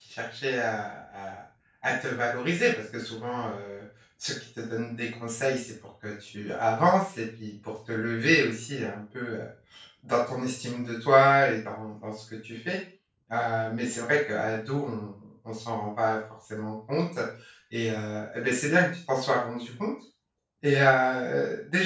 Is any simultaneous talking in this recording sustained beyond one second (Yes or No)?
No